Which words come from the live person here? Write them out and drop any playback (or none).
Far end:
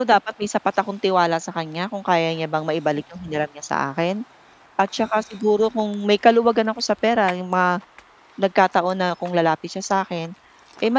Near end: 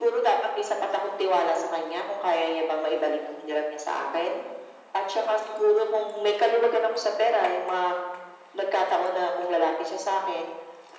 none